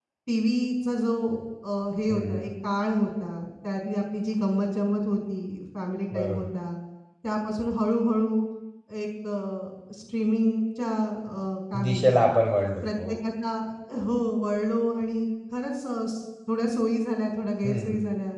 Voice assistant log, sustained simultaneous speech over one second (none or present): none